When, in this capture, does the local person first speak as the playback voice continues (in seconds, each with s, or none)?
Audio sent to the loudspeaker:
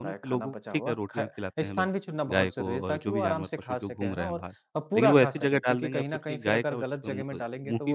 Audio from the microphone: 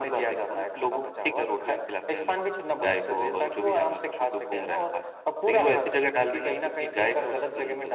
none